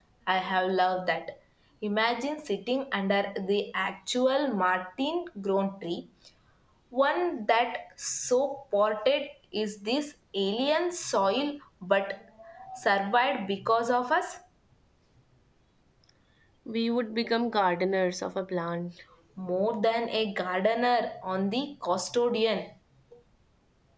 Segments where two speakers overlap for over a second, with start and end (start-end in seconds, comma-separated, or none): none